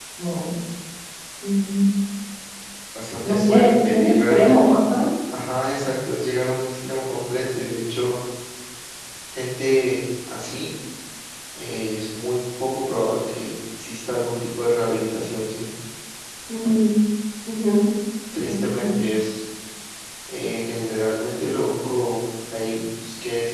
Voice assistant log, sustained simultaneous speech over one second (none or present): present